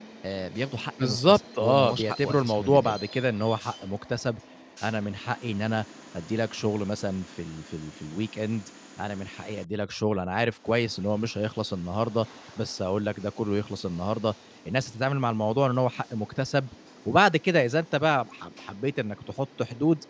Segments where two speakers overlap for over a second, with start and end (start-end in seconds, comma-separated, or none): 1.0-3.0